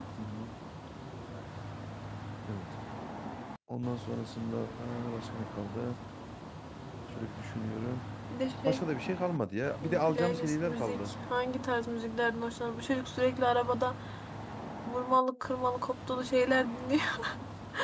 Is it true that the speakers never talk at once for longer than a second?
No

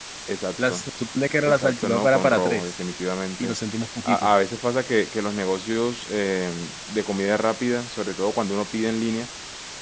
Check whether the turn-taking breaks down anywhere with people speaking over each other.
Yes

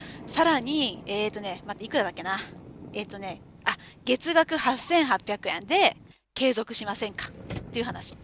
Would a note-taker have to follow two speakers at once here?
No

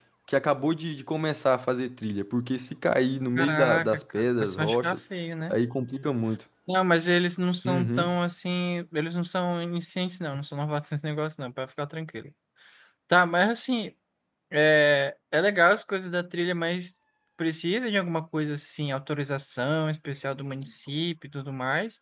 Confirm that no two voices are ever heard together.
No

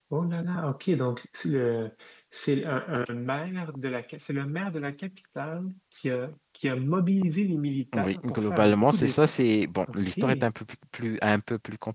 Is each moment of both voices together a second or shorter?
No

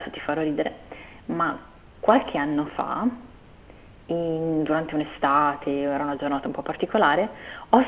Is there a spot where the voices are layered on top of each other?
No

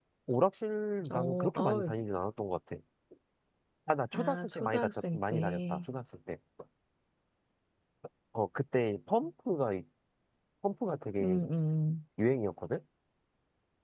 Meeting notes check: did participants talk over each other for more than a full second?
Yes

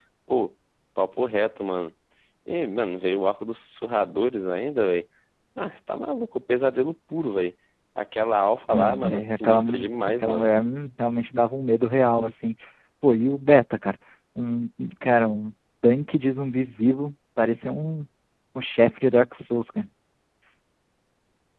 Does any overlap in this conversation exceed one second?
Yes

